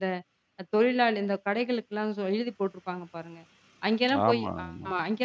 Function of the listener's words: listening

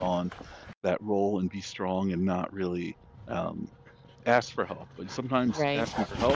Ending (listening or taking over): listening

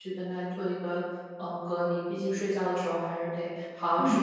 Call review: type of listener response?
taking over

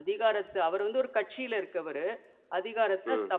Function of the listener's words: listening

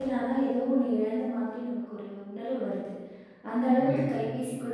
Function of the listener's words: listening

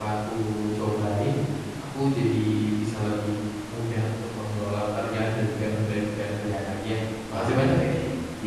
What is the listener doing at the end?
taking over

